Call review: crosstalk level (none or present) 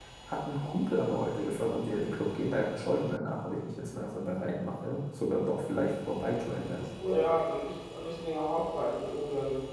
none